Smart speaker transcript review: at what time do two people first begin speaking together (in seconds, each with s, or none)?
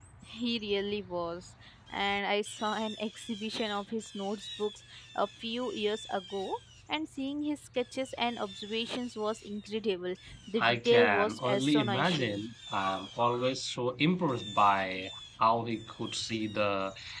10.6 s